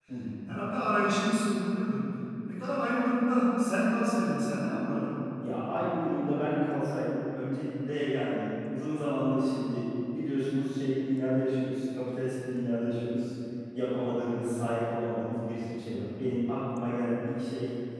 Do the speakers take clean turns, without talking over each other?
Yes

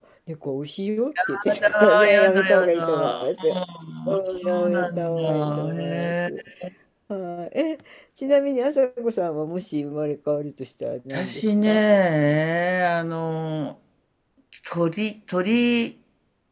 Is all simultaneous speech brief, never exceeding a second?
No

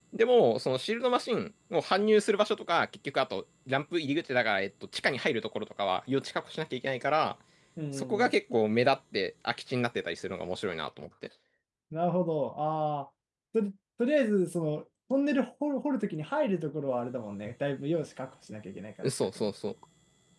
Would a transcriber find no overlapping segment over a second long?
Yes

